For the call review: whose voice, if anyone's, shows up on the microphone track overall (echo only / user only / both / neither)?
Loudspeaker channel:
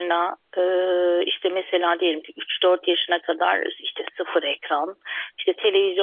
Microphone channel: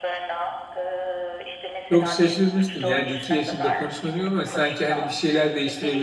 both